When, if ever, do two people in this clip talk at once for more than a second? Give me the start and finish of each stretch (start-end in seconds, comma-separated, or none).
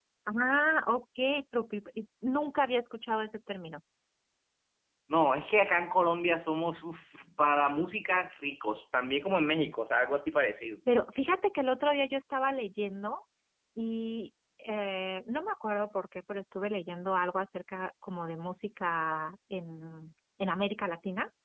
none